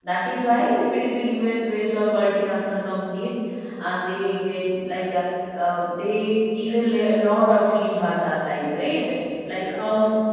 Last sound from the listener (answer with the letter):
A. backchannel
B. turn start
A